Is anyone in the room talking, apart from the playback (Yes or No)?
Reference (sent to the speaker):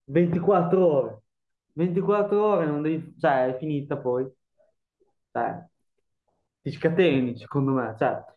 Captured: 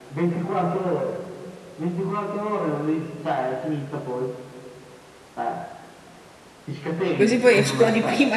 Yes